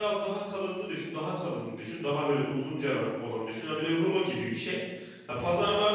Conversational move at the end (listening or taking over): listening